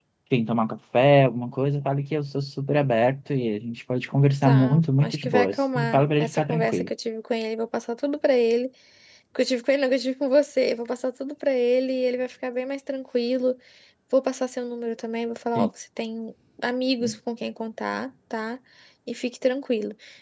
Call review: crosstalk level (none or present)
present